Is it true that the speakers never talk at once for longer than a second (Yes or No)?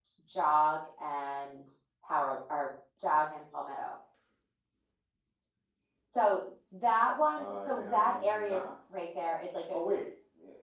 No